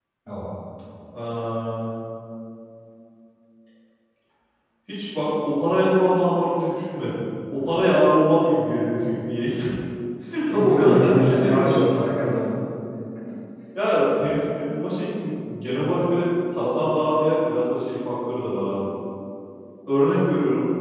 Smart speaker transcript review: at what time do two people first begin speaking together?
10.5 s

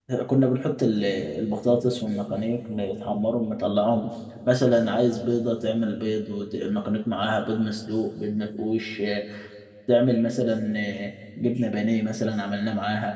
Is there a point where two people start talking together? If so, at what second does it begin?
none

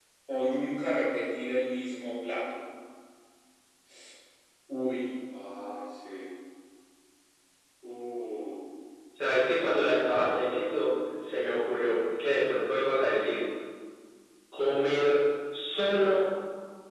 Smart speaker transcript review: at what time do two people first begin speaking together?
none

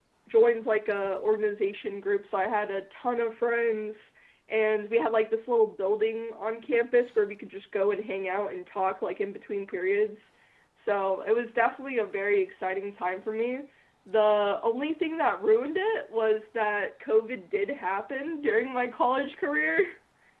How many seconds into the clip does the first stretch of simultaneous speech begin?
none

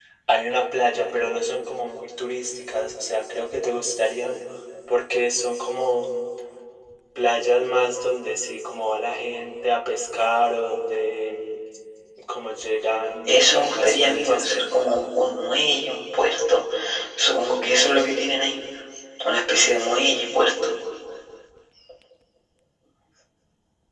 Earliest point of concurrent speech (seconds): 13.2 s

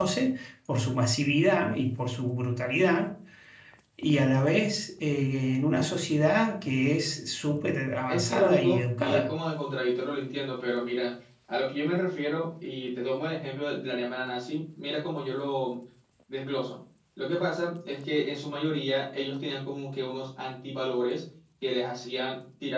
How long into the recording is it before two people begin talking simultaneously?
8.1 s

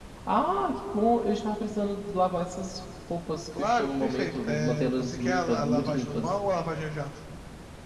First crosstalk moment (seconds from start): 3.5 s

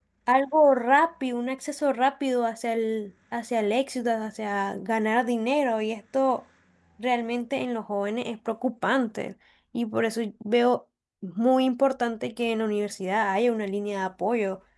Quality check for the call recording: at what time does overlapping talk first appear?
none

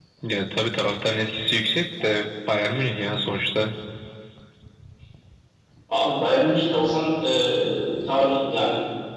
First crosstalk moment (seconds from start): none

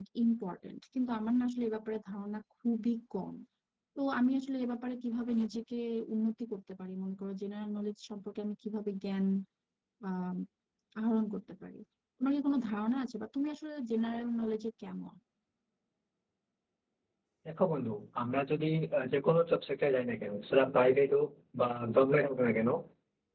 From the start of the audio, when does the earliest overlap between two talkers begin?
none

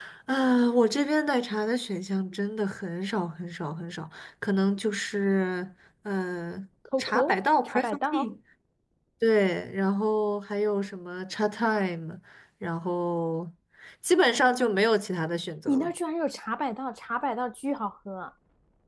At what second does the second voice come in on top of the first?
7.0 s

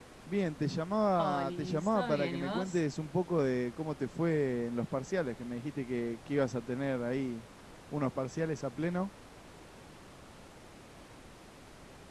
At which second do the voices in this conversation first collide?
1.2 s

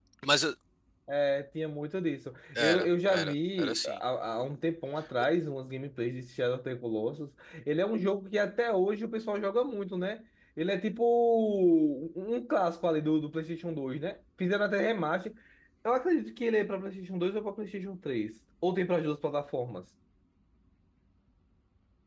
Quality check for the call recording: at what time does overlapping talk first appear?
2.5 s

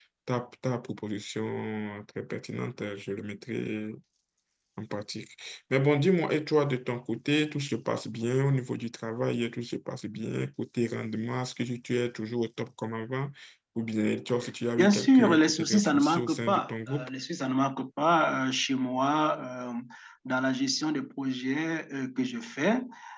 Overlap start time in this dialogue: 14.8 s

